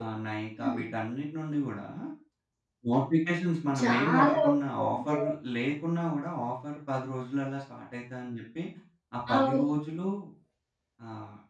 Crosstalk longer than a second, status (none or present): present